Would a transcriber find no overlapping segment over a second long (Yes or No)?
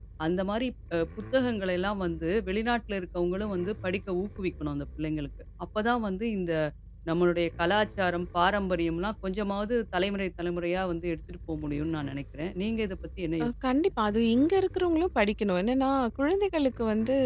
Yes